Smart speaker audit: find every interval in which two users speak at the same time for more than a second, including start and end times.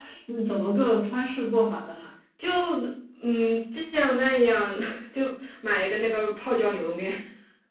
none

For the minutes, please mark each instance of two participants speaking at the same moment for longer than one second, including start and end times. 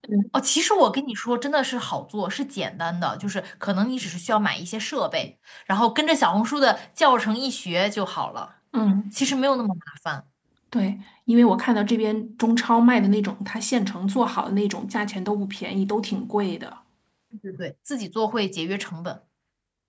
none

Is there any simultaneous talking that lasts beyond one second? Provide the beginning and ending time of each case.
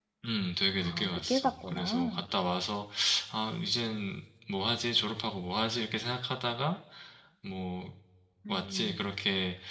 0.8-2.2

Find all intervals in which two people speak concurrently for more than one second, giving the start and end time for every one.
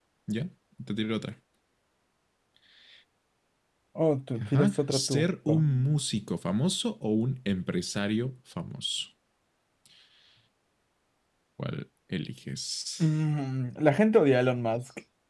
4.4-5.6

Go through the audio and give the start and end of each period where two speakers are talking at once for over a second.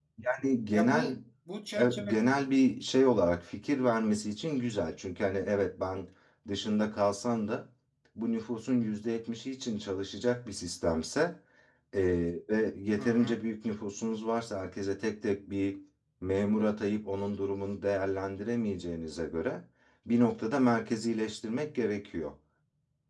none

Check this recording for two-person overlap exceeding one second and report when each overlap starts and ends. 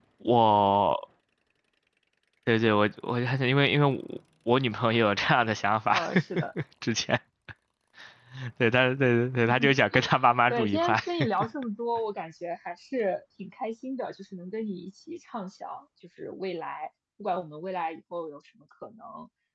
none

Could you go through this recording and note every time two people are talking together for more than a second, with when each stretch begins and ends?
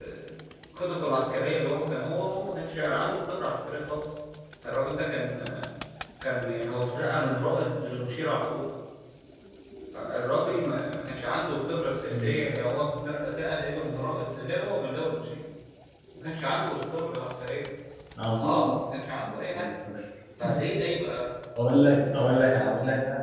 none

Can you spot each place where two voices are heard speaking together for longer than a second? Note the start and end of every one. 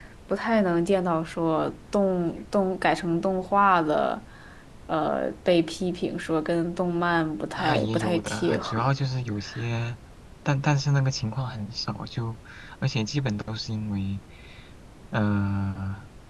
7.6-8.8

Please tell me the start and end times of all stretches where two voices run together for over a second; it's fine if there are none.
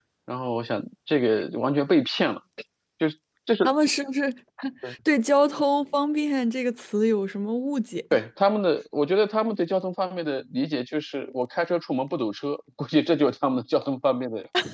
none

